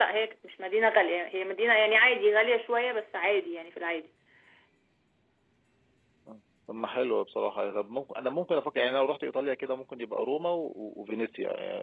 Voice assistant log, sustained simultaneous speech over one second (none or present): none